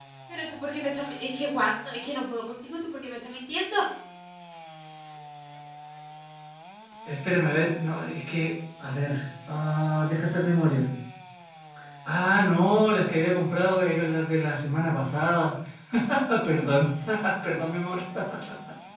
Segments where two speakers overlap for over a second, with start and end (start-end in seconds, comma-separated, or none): none